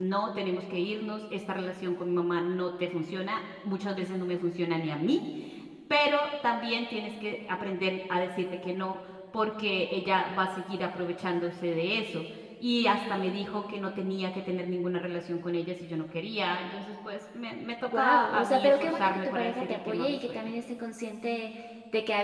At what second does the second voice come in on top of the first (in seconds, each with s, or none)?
17.9 s